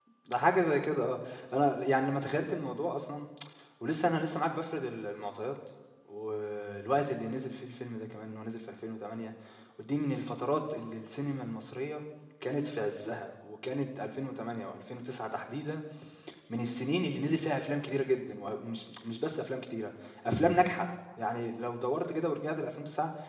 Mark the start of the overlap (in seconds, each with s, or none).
none